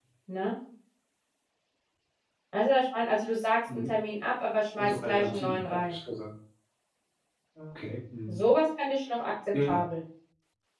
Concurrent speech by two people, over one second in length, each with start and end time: 4.8-6.0

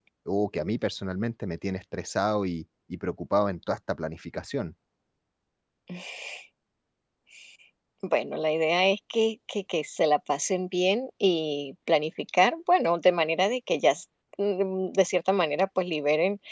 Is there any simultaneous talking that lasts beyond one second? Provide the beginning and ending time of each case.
none

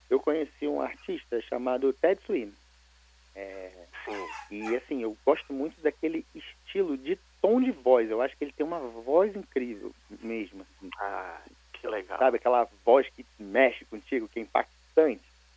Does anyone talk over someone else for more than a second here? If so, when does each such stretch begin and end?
none

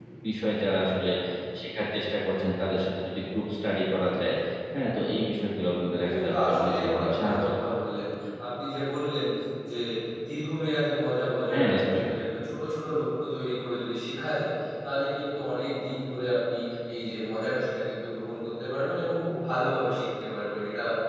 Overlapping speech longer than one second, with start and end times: 6.0-7.5

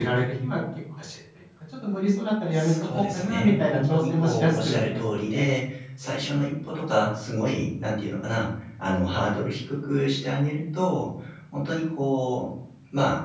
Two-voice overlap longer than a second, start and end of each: 2.5-5.5

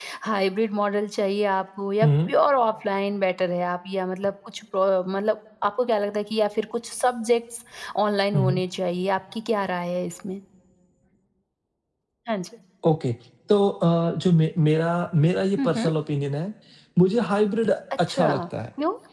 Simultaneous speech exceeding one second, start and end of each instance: none

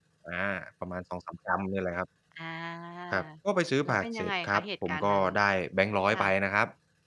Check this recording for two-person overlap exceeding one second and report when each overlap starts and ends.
3.8-5.2

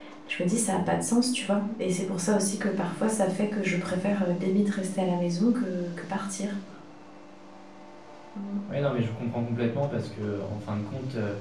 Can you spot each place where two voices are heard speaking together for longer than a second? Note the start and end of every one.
none

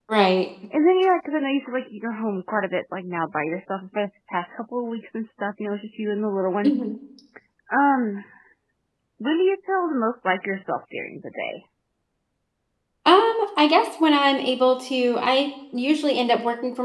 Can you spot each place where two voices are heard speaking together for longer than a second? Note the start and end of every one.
none

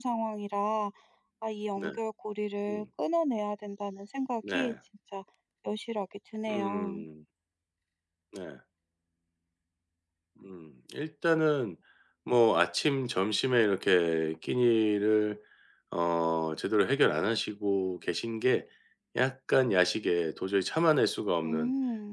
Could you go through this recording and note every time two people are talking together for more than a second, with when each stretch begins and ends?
none

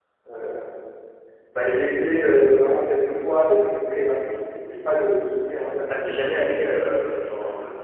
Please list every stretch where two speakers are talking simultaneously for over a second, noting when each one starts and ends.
none

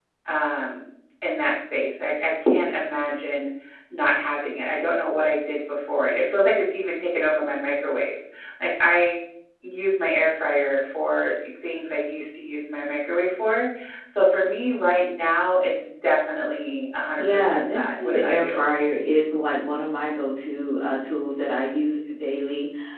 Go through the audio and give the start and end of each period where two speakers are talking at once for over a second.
17.2-18.6

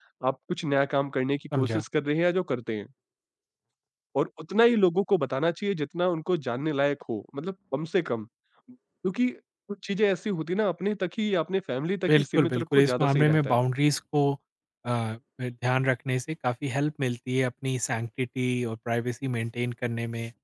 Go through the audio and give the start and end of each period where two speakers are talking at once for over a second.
12.1-13.6

